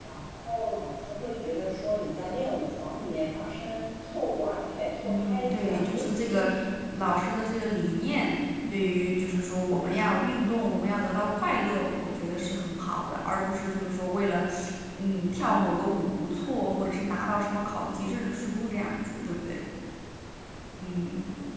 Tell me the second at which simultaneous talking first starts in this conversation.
5.0 s

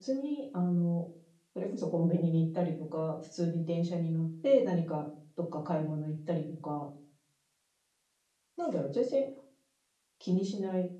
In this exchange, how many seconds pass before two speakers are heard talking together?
none

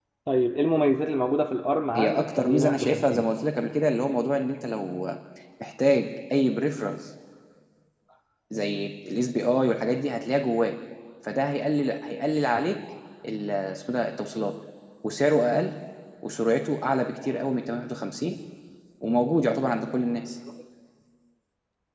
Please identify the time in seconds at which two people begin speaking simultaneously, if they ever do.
2.0 s

